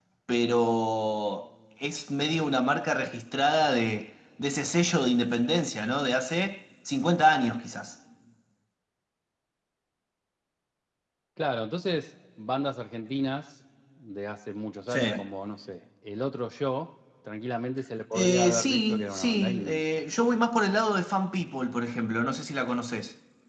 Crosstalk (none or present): present